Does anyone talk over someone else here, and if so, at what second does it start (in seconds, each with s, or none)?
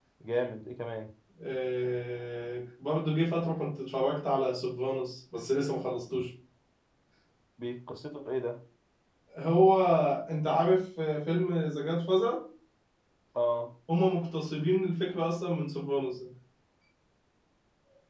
none